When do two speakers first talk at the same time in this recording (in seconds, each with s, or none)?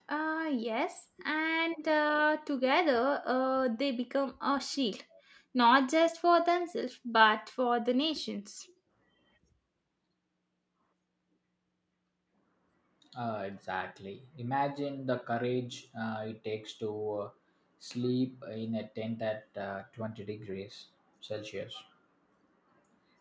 none